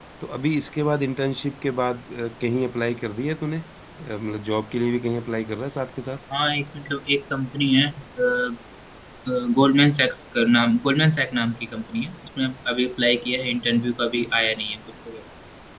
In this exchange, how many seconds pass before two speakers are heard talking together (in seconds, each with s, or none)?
none